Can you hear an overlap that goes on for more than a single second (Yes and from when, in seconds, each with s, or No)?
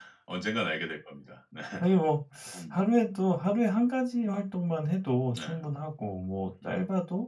No